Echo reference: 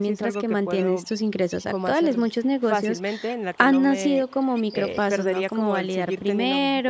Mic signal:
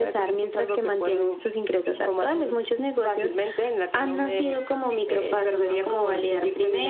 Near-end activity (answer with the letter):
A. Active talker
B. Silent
B